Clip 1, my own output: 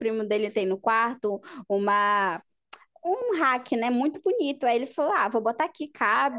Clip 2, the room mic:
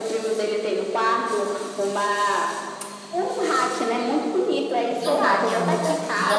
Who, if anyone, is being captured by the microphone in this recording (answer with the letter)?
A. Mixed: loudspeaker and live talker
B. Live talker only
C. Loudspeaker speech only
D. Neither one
A